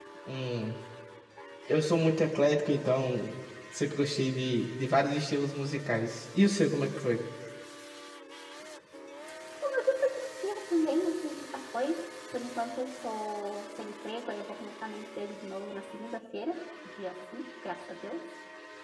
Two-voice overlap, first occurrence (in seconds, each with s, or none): none